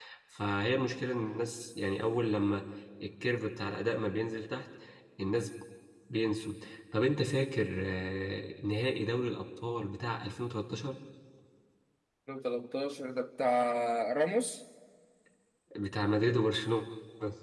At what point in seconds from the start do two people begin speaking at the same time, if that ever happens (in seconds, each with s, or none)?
none